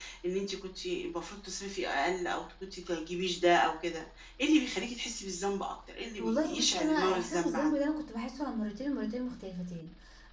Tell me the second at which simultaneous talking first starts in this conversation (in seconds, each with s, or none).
6.2 s